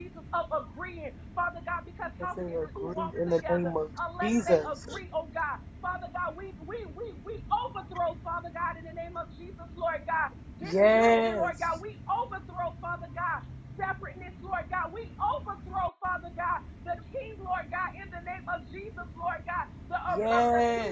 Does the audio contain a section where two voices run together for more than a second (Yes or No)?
Yes